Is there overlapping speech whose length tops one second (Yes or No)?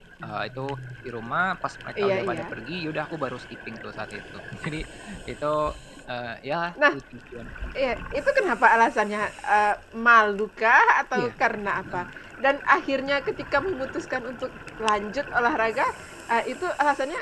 No